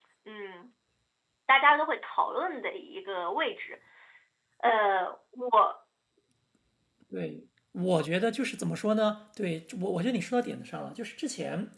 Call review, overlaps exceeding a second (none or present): none